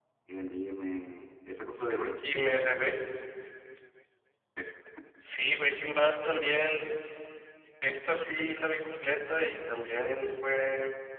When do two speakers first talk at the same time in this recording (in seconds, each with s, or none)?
1.7 s